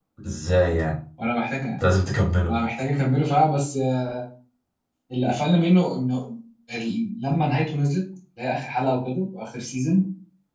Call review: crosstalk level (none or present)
none